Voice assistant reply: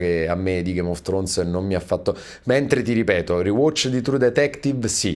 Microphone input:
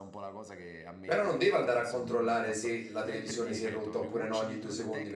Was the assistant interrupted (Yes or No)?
Yes